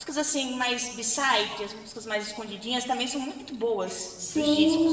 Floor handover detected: Yes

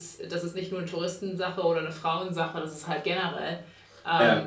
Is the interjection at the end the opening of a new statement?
No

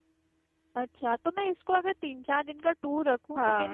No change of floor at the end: Yes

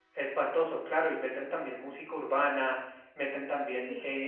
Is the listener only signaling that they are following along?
Yes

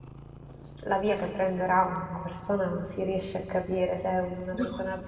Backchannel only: Yes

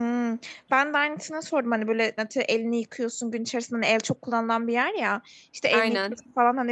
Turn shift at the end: No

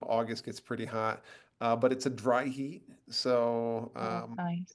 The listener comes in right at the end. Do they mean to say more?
No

